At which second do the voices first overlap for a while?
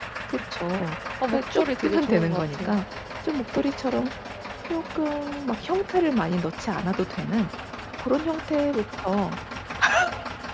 1.3 s

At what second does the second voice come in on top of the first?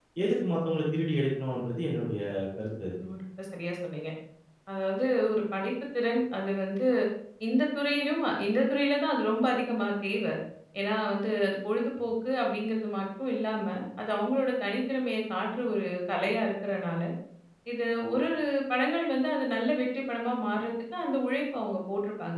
none

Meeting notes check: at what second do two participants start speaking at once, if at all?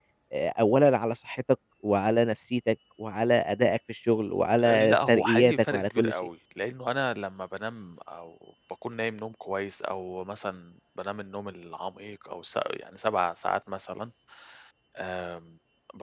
4.6 s

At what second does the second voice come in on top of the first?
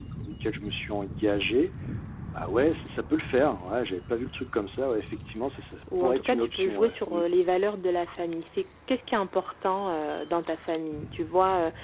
5.9 s

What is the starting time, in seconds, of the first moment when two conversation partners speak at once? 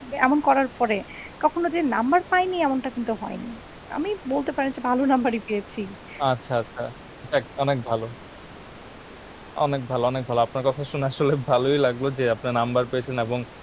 none

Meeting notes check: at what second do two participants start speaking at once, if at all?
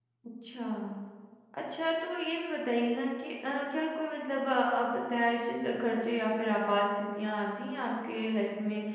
none

